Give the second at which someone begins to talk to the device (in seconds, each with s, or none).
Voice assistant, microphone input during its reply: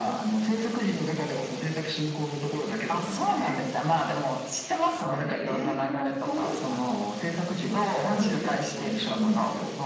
none